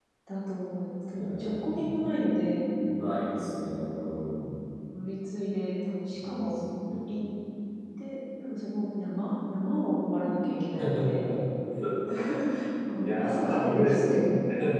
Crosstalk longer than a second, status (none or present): present